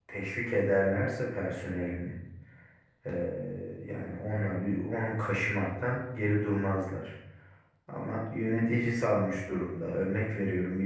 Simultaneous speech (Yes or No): No